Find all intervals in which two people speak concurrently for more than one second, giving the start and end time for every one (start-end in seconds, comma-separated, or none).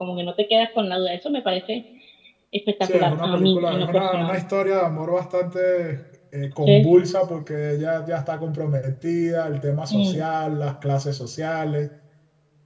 2.8-4.4